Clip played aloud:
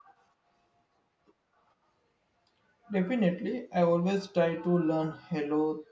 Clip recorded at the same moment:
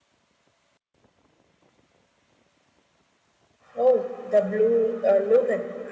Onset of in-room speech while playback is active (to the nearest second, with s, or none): 4 s